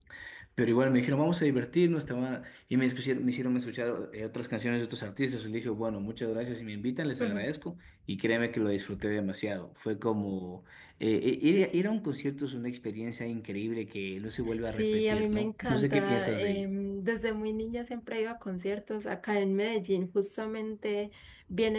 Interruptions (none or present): present